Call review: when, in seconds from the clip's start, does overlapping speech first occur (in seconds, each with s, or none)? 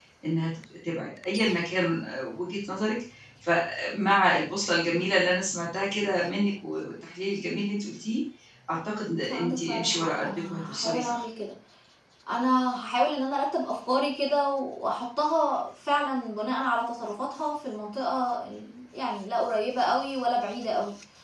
9.2 s